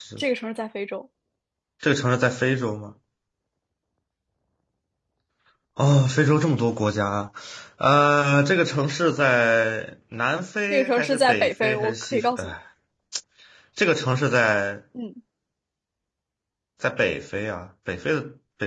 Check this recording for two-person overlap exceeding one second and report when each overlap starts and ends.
10.7-12.5

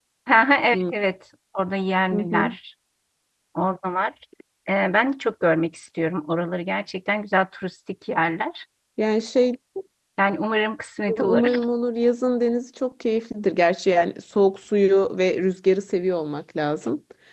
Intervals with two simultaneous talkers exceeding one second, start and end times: none

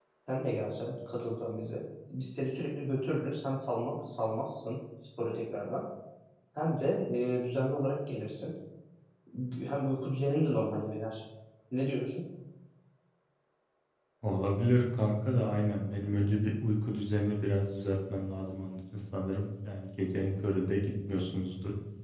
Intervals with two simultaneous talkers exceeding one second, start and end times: none

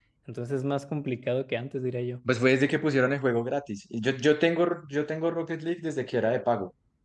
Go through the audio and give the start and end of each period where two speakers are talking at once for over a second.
none

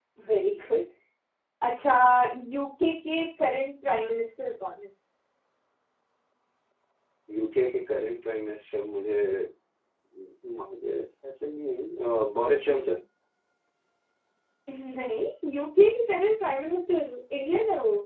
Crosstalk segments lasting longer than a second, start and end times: none

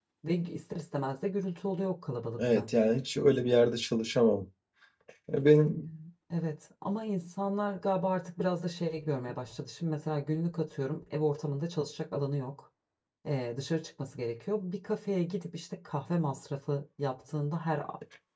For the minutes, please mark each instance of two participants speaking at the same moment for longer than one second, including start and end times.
none

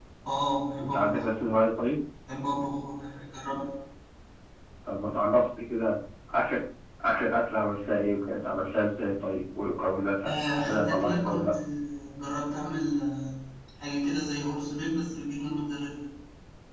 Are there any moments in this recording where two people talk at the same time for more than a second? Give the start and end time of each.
10.2-11.5

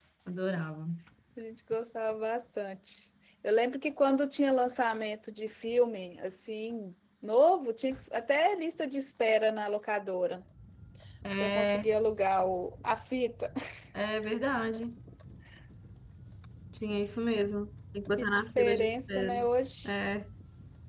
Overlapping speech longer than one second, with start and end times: 18.2-19.5

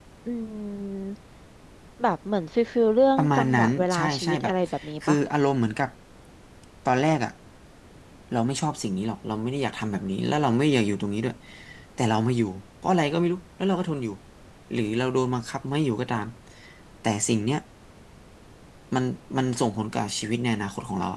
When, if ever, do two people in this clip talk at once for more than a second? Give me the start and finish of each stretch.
3.2-4.5

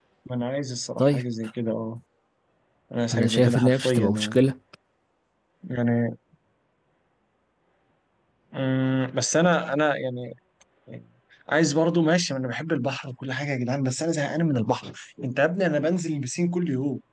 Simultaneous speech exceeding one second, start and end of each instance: 3.1-4.4

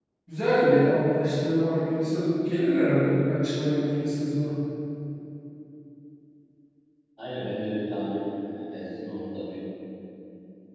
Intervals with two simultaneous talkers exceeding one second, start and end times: none

